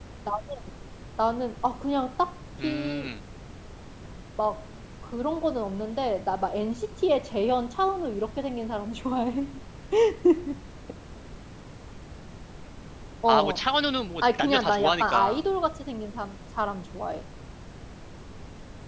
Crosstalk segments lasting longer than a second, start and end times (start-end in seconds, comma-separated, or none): 14.2-15.4